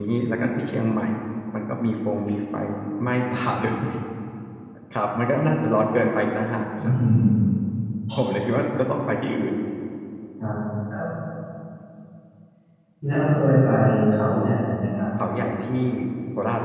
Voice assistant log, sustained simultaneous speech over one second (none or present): none